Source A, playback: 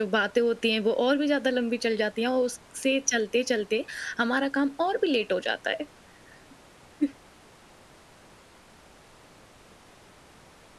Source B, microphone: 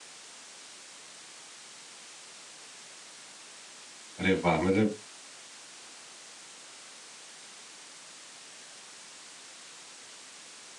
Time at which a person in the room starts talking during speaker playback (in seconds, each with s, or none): 4.2 s